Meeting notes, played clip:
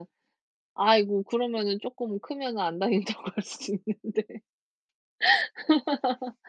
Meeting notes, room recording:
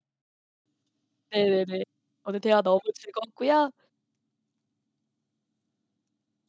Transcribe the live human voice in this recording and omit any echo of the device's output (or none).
네네. 오늘 대화 너무 즐거웠고요.